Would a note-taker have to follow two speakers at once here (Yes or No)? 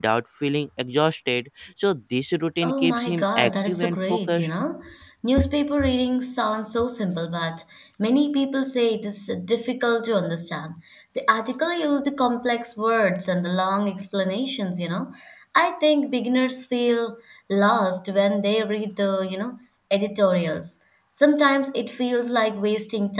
Yes